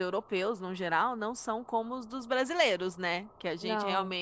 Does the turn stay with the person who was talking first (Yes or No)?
Yes